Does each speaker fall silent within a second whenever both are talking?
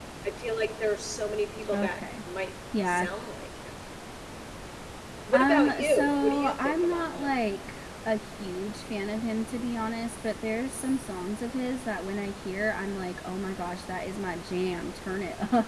No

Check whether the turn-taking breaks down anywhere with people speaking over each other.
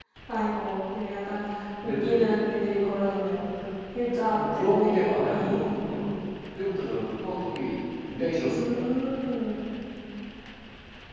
Yes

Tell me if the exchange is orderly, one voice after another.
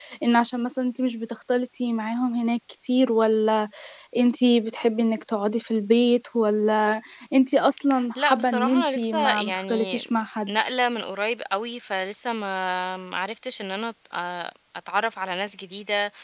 No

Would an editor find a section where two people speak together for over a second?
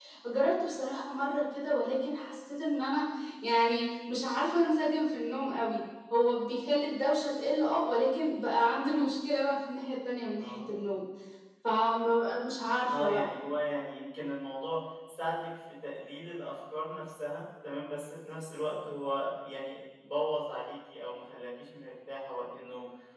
No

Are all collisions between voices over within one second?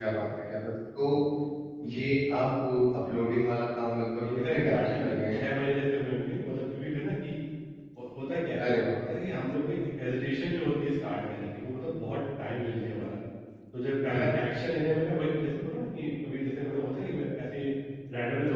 No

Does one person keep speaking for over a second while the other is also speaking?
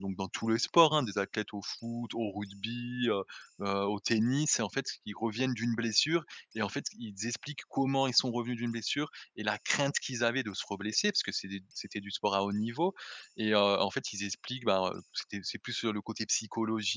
No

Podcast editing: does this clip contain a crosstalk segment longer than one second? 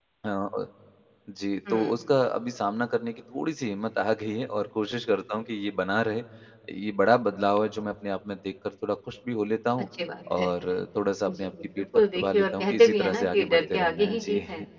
Yes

